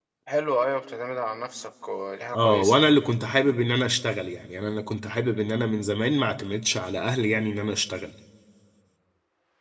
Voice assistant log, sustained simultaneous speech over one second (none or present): none